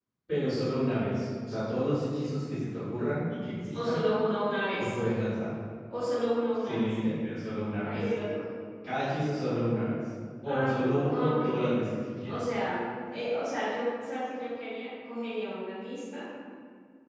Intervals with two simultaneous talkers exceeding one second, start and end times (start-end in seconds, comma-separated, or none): 10.4-11.8